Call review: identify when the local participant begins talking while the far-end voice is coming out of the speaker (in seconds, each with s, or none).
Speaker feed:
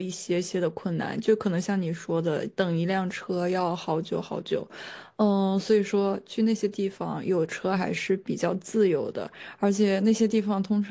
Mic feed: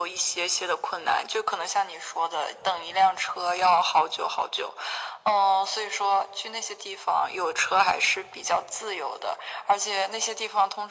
none